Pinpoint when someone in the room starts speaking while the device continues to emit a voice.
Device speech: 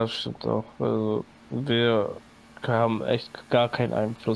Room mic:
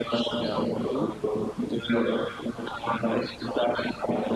0.4 s

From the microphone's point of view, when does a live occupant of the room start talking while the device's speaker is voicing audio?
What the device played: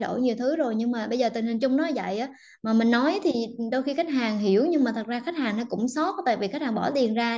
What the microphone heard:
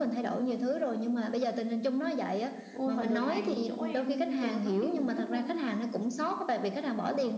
2.7 s

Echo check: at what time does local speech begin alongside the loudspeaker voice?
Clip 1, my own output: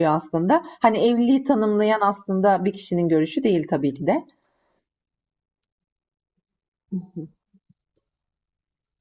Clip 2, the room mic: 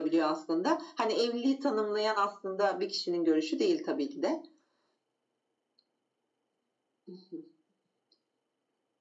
none

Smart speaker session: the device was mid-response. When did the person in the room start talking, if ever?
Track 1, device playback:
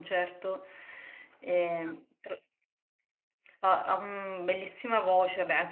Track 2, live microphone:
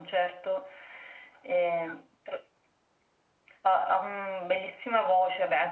none

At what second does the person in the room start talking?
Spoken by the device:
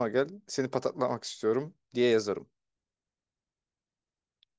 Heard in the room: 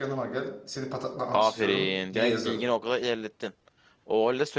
1.3 s

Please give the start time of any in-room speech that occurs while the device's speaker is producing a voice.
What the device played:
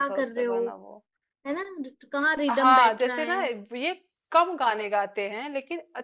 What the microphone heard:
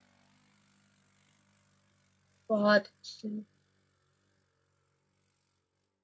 2.5 s

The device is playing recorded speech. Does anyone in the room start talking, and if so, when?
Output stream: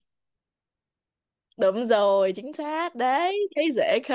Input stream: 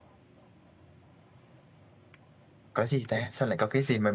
2.7 s

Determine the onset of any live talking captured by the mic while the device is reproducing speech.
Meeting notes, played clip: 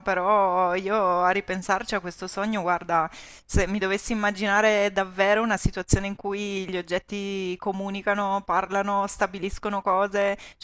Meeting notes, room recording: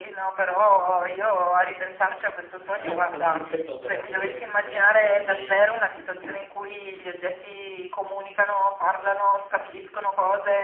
2.7 s

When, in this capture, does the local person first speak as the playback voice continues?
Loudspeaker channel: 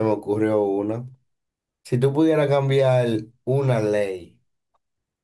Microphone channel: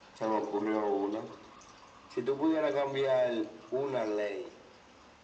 none

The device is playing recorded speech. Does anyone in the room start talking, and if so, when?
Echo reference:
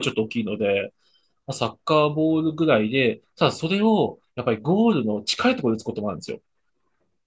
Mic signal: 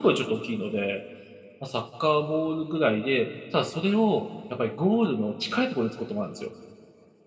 none

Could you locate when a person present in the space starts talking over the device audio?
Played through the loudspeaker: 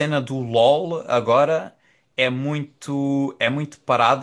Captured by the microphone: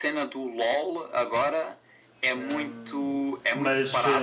2.4 s

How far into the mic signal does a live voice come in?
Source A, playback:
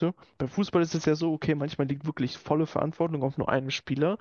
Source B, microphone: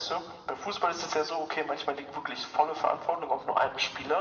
none

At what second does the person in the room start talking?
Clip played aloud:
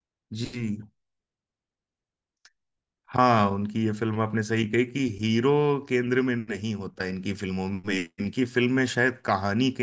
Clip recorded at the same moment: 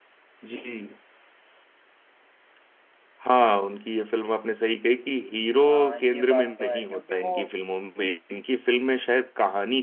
5.6 s

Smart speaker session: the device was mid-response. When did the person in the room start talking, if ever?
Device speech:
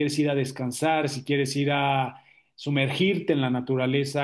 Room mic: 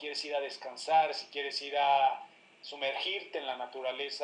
none

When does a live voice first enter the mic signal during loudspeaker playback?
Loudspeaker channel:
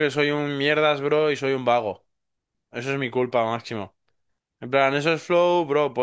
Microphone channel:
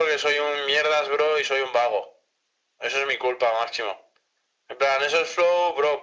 none

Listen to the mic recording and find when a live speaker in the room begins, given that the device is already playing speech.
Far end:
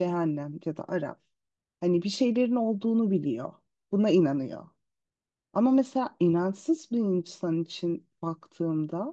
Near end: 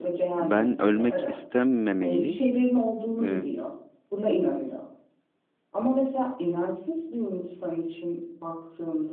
0.4 s

